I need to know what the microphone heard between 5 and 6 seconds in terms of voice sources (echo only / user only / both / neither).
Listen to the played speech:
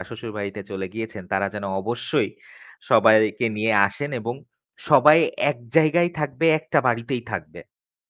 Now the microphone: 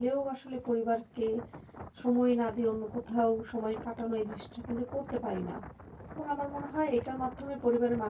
user only